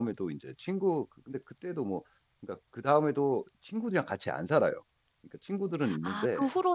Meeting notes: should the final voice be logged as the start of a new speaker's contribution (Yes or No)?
Yes